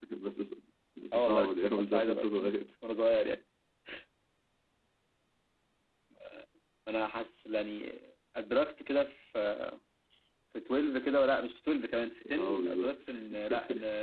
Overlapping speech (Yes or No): Yes